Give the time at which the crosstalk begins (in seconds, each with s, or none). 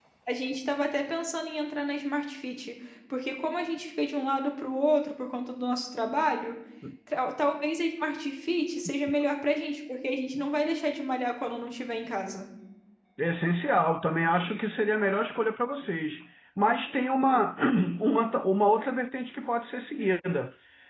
none